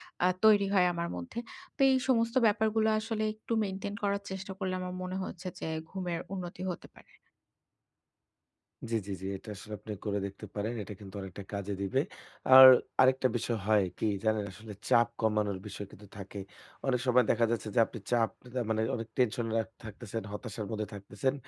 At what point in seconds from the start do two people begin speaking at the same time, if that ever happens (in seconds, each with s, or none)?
none